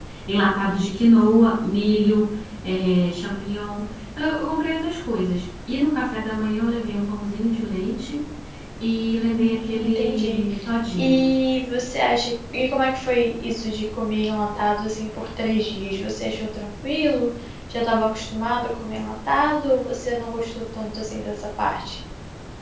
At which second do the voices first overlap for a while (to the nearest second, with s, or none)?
9 s